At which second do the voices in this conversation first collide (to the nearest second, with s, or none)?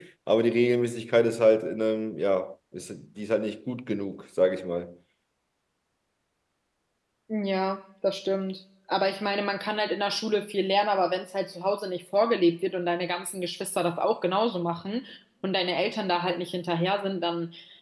none